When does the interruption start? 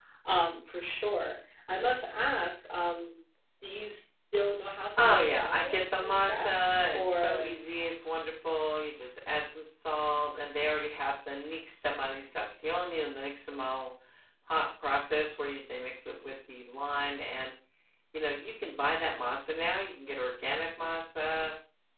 5.0 s

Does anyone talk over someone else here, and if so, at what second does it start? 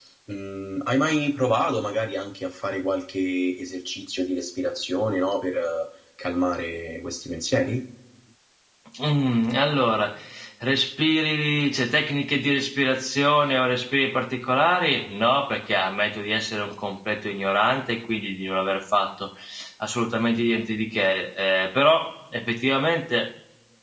none

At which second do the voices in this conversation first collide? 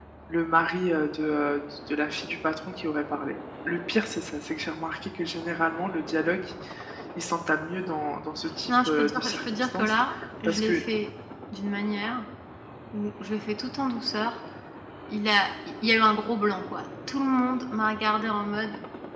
8.7 s

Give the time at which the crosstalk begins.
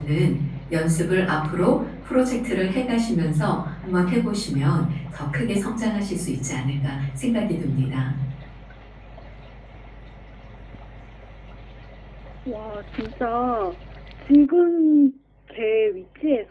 none

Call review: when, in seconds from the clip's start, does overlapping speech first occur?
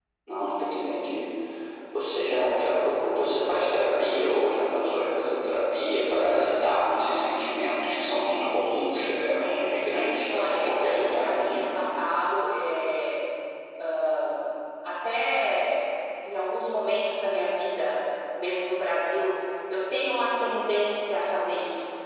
10.3 s

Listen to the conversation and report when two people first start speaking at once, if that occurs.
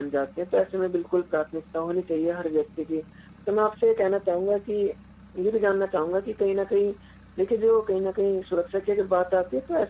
none

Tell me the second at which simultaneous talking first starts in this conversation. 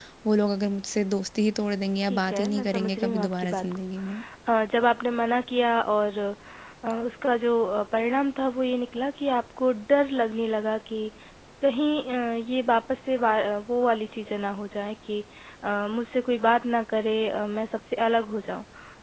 2.0 s

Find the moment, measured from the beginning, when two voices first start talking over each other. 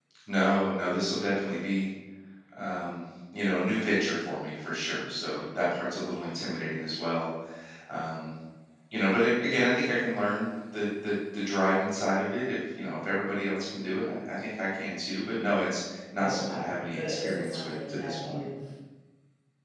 16.2 s

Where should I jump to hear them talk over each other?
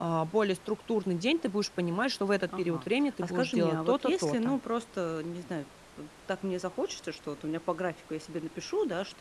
2.5 s

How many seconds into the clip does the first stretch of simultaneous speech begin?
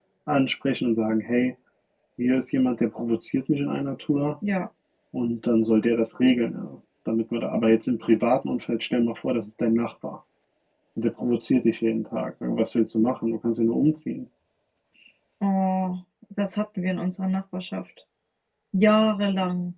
none

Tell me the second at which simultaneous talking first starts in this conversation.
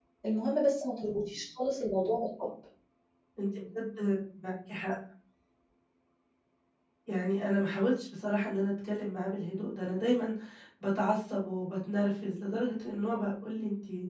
none

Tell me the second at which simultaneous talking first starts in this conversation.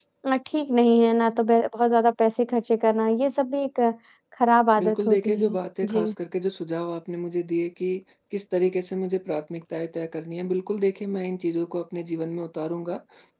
4.8 s

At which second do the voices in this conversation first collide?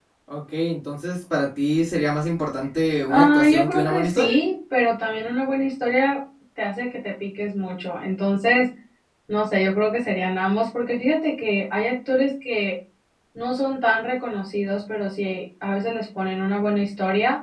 3.1 s

